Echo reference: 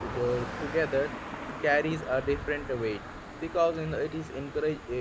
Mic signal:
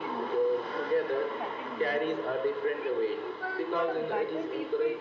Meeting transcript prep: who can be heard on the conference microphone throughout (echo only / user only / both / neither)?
both